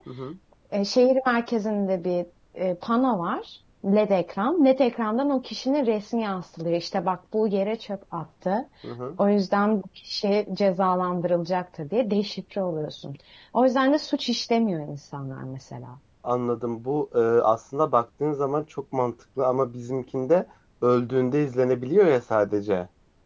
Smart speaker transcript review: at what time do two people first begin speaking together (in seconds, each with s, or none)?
none